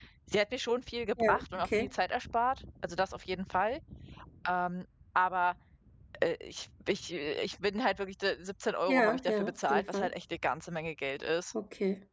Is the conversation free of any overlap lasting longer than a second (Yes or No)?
No